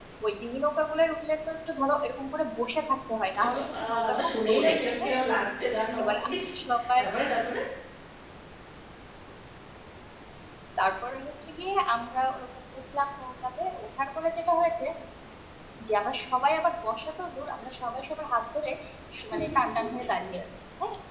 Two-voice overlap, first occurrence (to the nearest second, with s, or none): 3 s